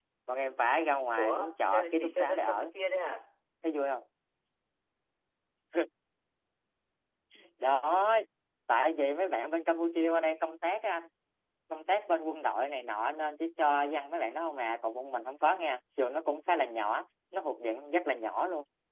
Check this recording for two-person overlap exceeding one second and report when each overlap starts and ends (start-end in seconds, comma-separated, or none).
1.2-2.7